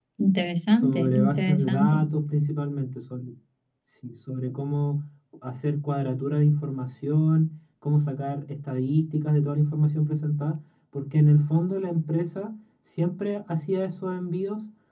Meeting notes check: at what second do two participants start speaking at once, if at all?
0.7 s

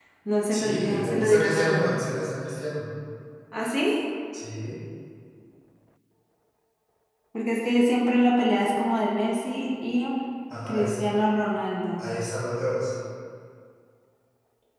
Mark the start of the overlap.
0.5 s

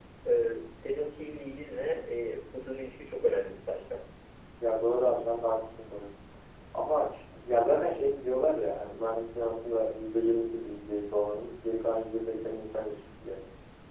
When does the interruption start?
none

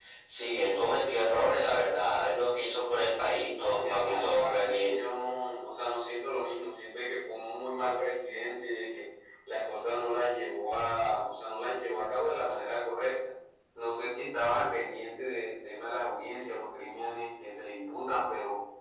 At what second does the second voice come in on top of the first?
3.5 s

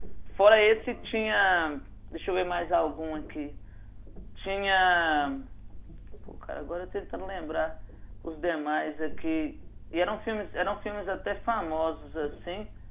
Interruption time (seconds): none

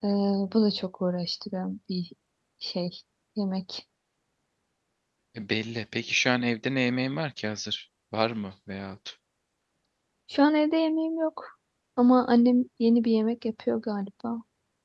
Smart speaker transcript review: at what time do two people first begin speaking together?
none

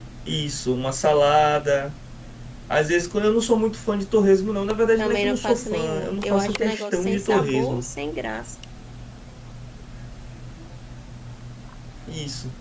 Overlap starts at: 5.0 s

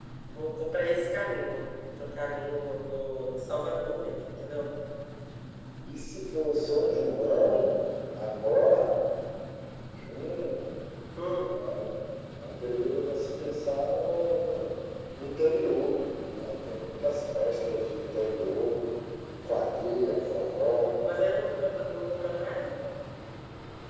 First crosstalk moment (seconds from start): none

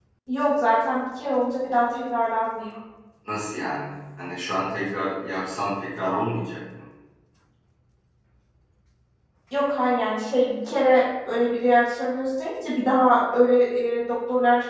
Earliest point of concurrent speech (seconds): none

